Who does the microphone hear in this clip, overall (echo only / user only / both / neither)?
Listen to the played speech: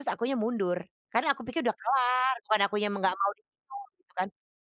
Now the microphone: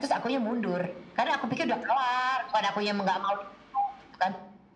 echo only